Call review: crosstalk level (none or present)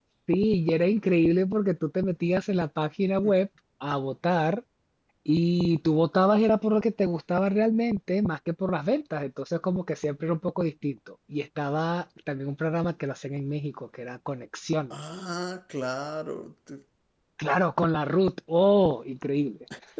none